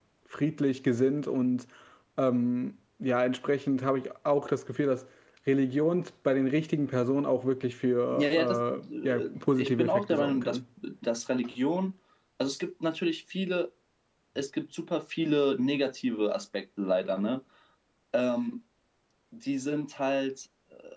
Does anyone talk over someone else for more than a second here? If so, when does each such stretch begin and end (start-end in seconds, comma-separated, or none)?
8.2-10.6